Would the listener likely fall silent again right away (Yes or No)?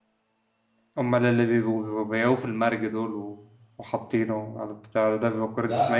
No